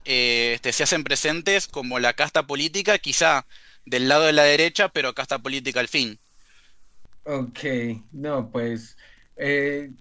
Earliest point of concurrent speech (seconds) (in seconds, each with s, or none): none